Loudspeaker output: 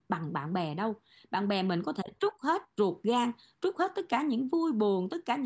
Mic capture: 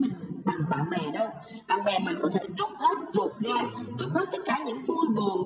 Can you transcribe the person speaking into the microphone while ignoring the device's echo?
ừ hứ,

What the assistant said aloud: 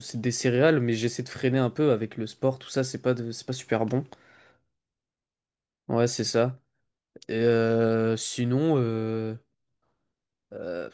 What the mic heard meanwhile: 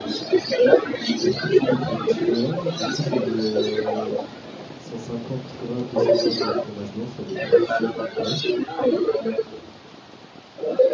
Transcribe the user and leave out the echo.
bah, je t'explique le petit mélange. Du coup, je me mets euh, 150 grammes, 200 grammes de fromage blanc, ça dépend si j'ai faim ou pas.

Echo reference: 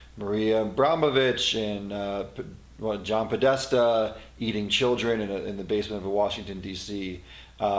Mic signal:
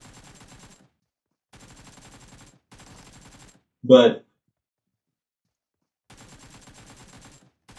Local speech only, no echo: But

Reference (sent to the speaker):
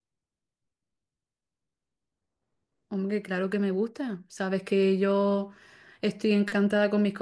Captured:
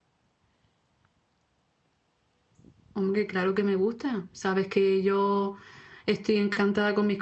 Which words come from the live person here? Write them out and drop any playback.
none

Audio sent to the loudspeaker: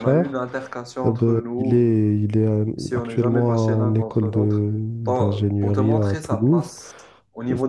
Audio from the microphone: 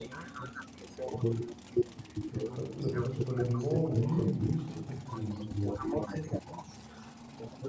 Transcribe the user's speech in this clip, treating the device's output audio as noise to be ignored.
Bah, pe- pe- Personnellement, oui, oui, je dirais que, je-

